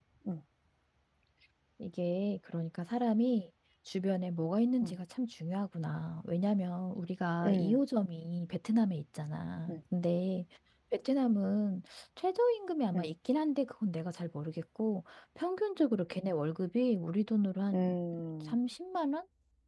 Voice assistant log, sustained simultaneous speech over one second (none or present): none